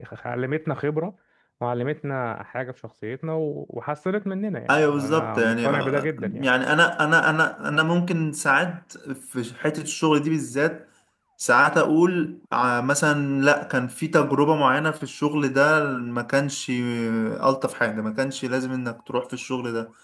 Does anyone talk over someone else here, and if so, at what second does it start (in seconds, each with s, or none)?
4.7 s